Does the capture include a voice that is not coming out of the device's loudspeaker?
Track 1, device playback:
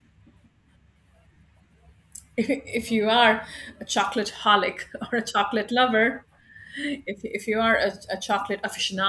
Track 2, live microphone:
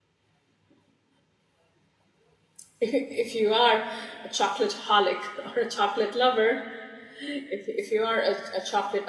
No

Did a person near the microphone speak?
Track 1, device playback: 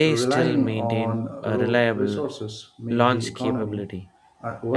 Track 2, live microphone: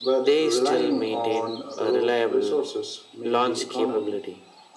No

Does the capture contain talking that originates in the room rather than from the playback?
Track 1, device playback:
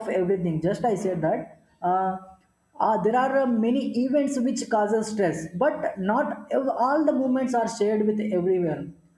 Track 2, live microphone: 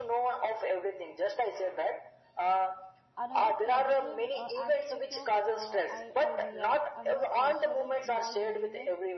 Yes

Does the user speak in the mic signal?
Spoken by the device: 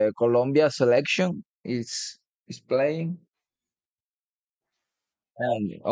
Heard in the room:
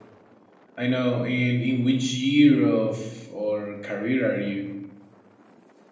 Yes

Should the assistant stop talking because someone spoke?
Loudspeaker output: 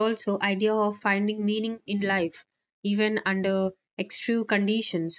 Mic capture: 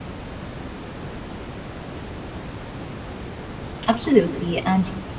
Yes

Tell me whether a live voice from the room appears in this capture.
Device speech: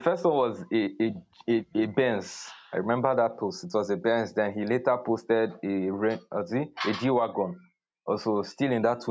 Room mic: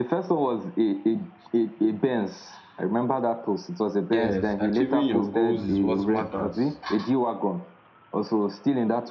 Yes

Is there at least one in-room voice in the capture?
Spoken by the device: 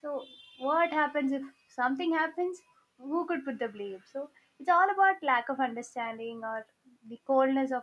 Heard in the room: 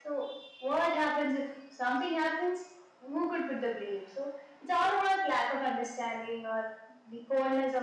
No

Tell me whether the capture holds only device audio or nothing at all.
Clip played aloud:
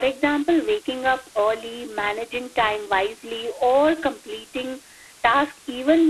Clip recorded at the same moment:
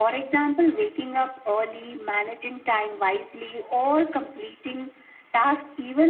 Yes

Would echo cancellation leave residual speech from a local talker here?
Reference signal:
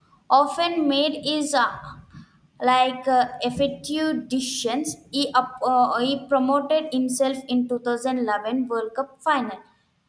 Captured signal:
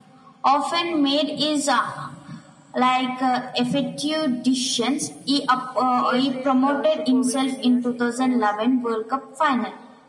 Yes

